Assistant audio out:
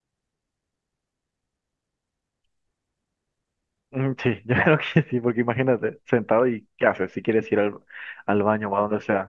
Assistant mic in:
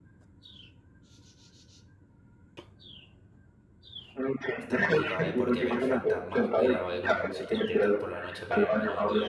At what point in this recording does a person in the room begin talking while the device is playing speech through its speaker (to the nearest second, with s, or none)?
5 s